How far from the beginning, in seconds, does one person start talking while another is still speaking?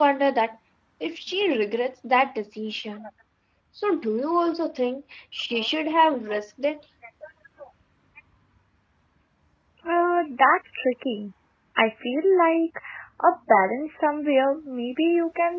none

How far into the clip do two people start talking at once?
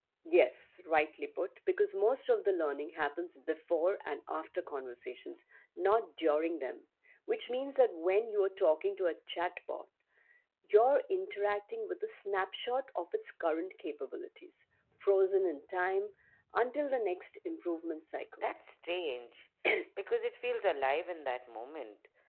none

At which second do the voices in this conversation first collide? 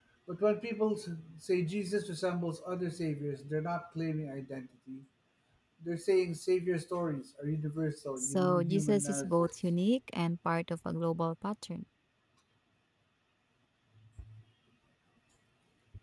8.2 s

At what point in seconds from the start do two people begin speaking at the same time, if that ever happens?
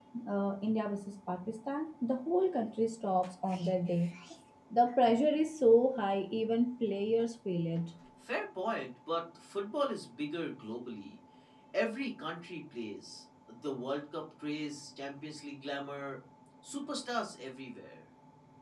none

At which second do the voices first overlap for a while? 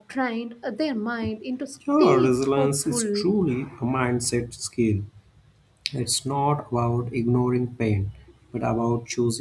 2.0 s

